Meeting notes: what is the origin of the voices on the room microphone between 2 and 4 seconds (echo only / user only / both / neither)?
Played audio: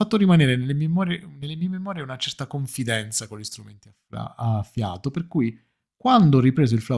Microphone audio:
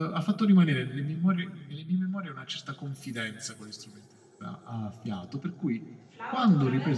echo only